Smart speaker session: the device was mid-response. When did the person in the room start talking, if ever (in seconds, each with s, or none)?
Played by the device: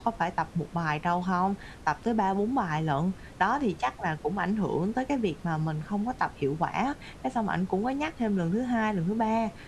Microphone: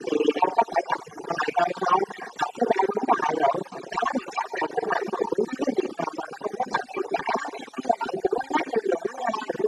none